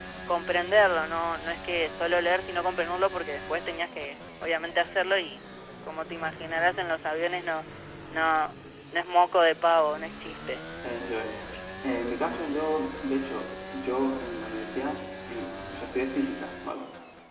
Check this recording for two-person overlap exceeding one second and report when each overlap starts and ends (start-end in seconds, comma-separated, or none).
none